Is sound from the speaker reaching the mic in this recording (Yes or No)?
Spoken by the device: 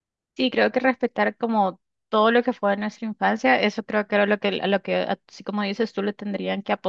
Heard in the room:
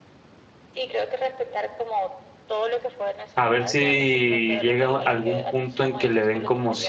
Yes